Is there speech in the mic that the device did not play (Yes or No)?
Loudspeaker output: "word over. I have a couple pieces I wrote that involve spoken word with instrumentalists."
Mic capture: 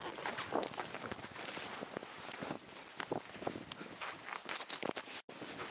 No